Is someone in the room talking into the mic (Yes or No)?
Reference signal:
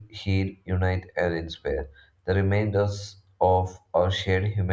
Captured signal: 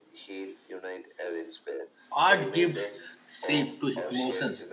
Yes